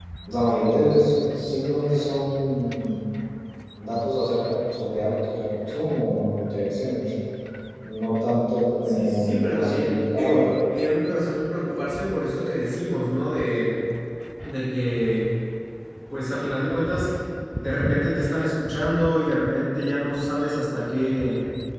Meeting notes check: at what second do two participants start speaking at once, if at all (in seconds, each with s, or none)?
8.9 s